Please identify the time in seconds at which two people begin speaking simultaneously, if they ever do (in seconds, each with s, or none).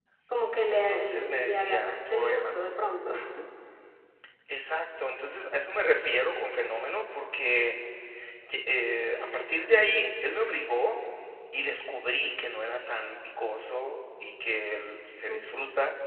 0.7 s